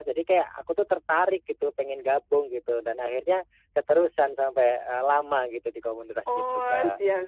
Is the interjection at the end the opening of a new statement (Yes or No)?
Yes